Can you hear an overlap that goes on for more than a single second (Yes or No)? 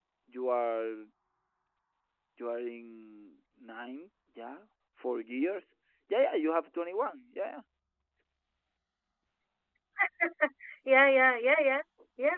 No